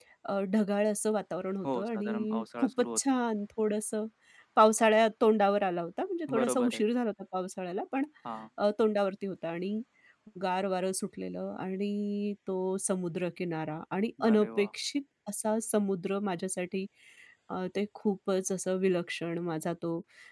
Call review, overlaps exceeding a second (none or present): present